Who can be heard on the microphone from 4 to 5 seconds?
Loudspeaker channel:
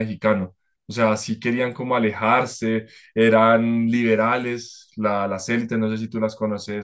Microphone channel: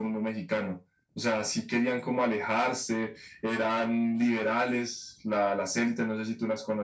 echo only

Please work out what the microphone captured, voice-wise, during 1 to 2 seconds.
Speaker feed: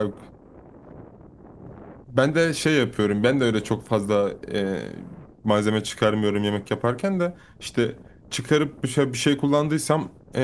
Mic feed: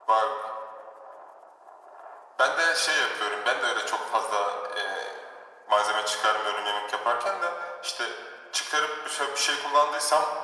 neither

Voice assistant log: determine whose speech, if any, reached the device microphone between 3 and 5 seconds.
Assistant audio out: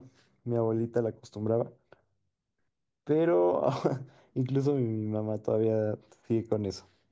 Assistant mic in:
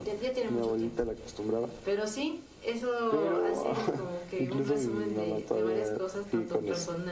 both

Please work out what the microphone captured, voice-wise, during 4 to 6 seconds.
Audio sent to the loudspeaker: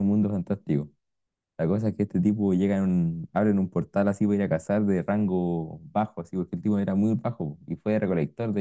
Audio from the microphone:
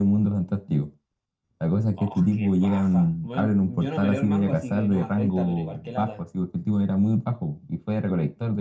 both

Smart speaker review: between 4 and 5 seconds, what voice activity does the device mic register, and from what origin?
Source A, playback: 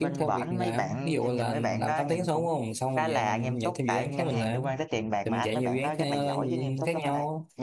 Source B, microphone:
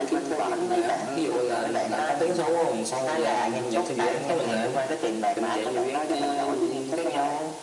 echo only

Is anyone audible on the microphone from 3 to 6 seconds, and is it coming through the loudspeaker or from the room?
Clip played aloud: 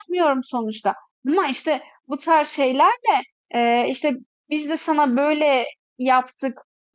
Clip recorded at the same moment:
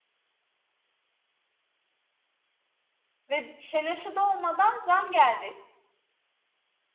user only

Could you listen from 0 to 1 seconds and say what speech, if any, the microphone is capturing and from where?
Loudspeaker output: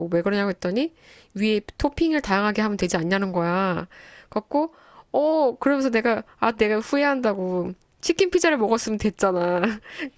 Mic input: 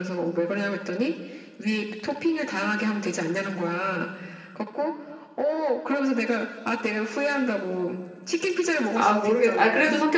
echo only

